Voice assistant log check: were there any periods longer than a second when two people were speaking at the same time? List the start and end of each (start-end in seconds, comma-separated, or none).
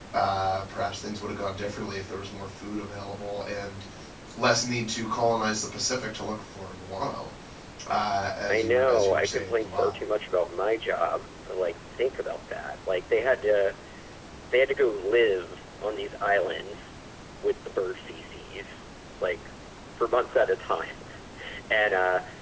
8.5-9.9